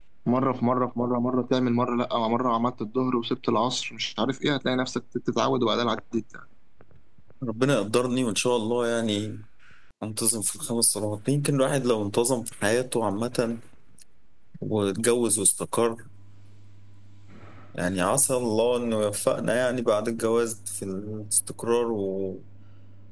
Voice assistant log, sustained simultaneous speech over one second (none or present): none